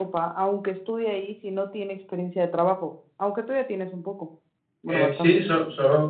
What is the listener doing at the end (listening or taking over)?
taking over